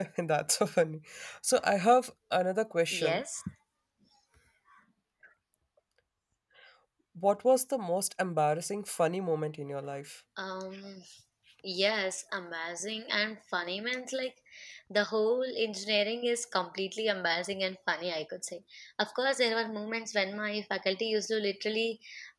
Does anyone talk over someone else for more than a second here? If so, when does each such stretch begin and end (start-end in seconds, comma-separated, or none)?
none